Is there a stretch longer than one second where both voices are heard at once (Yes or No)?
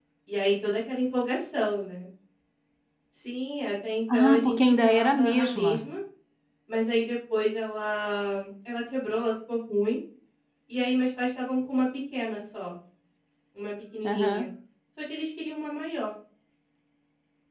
Yes